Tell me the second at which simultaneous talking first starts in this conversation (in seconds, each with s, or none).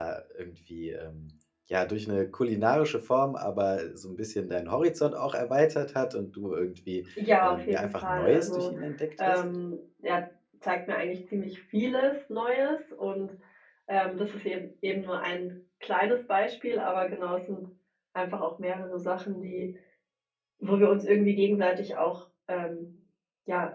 7.4 s